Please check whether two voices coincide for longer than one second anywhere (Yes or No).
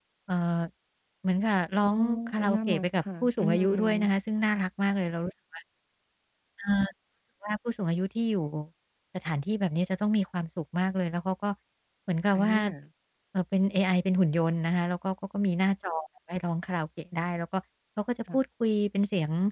Yes